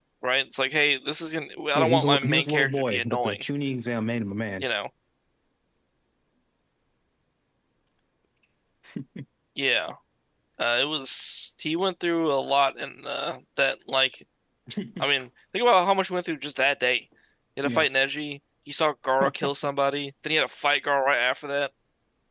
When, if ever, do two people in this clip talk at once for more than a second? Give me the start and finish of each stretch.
1.8-3.4

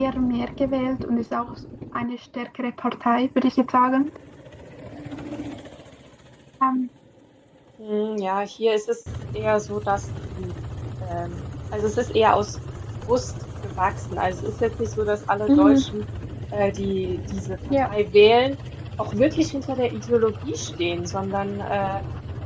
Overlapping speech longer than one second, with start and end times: none

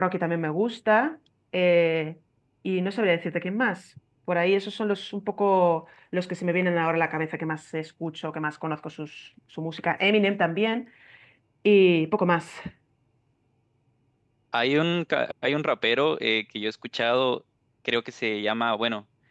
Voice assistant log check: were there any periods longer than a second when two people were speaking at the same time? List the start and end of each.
none

